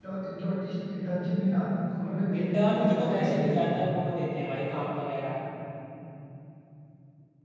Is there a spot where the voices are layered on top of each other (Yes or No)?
Yes